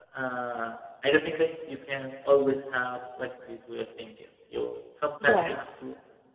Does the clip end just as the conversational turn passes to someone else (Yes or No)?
No